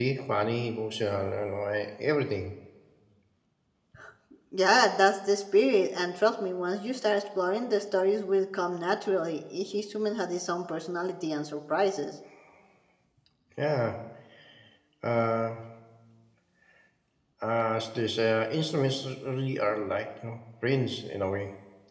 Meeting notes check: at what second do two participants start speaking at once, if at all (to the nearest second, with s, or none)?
none